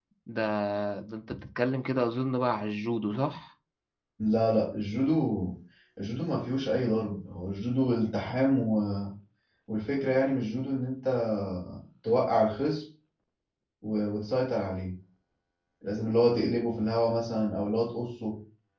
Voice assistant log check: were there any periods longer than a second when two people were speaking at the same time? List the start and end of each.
none

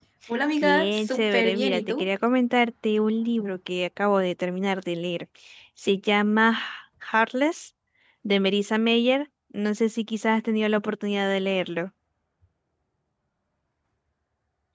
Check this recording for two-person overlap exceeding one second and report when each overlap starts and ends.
0.6-2.1

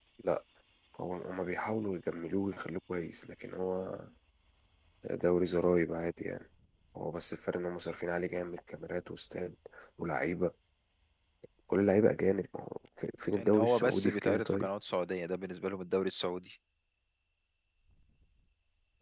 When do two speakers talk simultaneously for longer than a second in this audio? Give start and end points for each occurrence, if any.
13.4-14.7

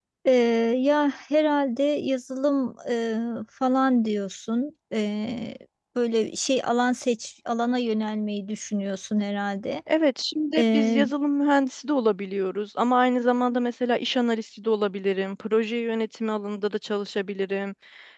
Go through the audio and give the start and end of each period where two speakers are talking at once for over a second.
none

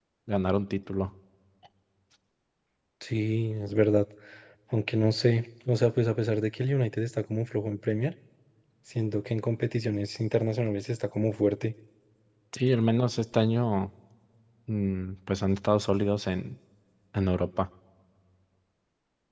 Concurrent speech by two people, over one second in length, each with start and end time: none

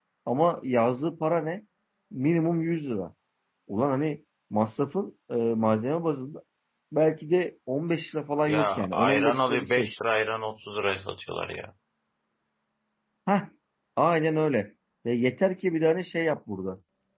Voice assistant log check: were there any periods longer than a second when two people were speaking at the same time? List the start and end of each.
8.5-9.9

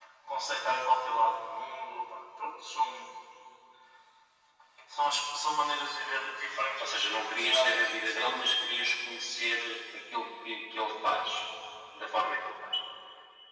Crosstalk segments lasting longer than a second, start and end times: 6.8-8.4

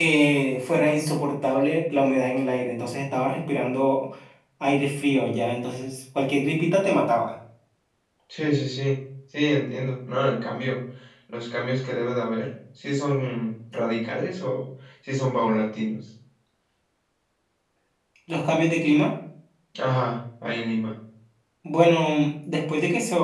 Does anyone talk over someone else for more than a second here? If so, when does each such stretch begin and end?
none

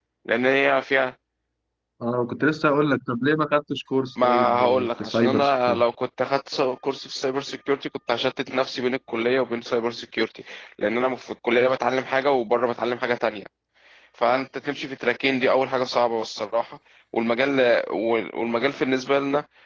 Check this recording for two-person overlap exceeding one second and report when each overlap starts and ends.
4.2-5.8

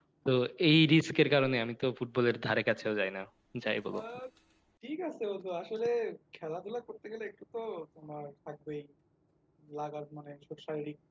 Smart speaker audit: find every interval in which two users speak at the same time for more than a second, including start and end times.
none

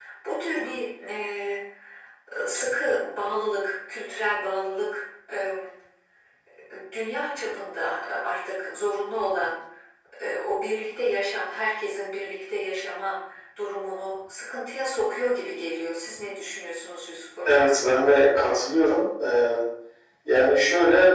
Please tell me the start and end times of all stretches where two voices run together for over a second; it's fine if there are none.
none

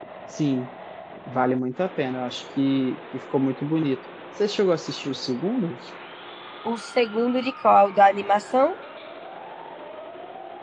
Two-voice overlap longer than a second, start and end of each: none

